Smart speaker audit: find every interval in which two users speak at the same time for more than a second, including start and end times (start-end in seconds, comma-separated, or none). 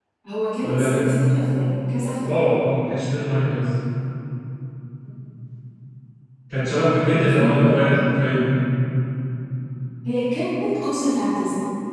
6.7-7.9